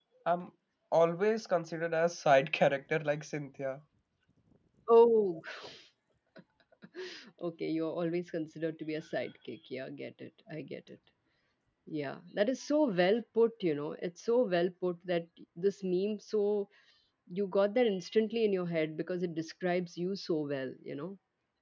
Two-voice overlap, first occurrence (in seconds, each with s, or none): none